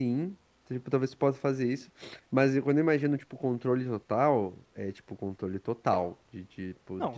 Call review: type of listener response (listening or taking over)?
taking over